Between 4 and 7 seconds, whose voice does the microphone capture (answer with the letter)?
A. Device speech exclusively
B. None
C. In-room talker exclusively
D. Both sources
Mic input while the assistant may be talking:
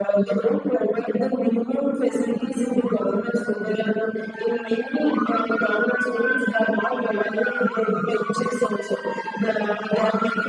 A